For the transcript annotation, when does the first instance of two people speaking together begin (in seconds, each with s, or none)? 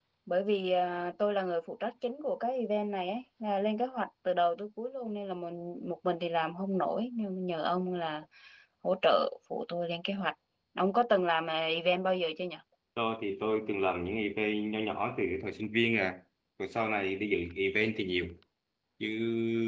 none